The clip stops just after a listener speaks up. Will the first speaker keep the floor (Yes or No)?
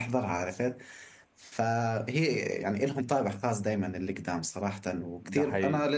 Yes